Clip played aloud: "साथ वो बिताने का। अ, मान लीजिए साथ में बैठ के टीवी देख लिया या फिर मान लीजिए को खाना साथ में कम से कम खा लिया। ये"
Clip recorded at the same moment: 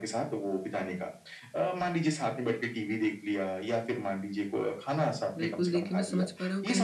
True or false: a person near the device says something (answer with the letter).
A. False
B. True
B